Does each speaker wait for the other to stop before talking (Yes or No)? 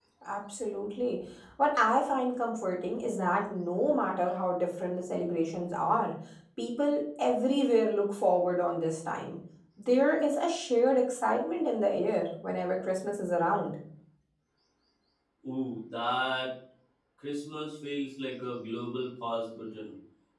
Yes